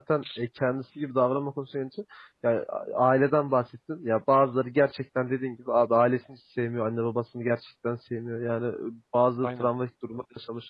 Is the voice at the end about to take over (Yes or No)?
No